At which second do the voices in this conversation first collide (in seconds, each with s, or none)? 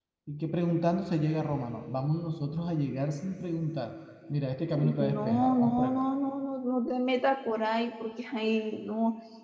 4.7 s